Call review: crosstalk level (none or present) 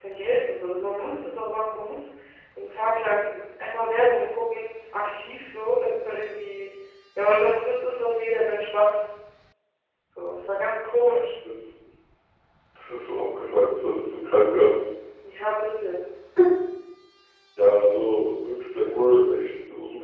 none